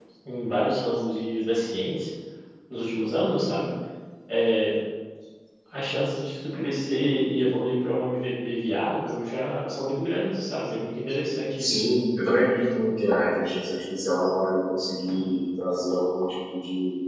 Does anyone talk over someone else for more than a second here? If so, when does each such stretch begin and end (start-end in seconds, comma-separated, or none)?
none